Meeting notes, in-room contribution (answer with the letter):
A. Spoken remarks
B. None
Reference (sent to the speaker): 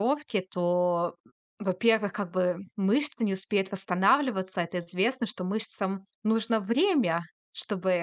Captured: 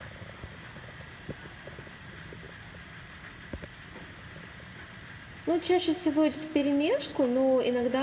A